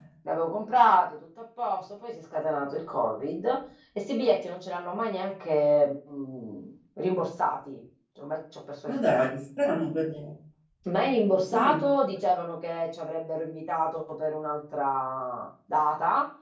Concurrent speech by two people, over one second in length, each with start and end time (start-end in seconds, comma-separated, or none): none